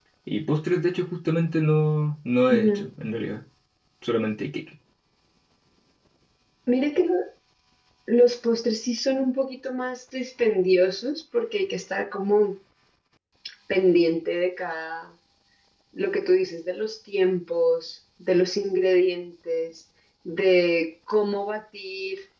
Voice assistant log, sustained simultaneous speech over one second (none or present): none